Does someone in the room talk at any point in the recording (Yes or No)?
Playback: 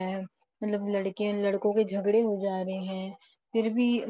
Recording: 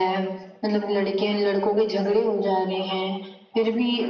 No